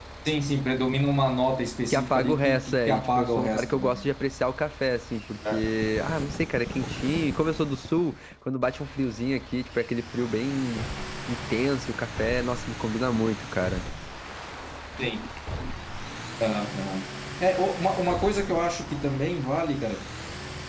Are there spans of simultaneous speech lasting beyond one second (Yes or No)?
Yes